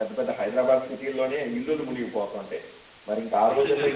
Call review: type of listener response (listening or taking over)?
listening